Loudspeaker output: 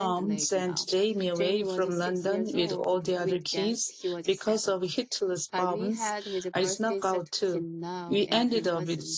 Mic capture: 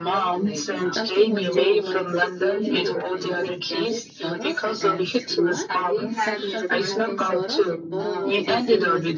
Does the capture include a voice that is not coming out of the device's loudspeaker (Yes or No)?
Yes